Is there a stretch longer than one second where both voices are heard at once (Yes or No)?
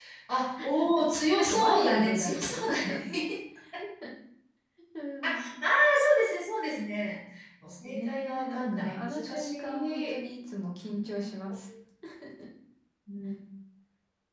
Yes